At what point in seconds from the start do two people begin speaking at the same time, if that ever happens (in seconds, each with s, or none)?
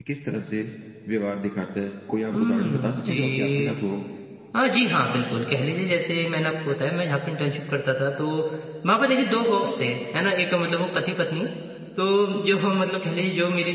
2.3 s